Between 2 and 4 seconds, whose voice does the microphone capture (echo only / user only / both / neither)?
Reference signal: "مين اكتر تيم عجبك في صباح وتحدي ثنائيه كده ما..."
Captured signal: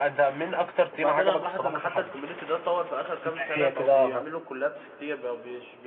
both